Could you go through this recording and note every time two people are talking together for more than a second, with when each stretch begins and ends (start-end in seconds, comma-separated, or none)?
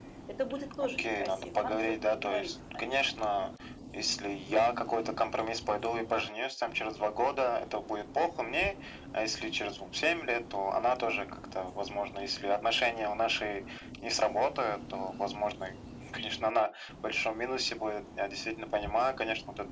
0.8-3.2